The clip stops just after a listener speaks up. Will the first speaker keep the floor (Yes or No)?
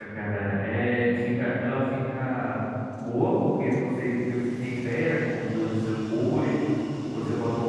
Yes